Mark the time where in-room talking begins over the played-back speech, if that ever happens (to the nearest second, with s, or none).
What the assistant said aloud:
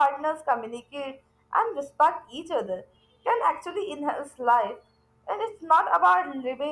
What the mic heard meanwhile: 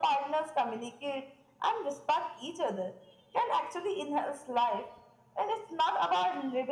none